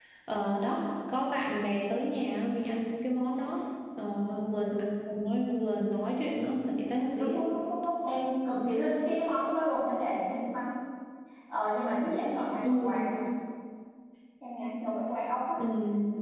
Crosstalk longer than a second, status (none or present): none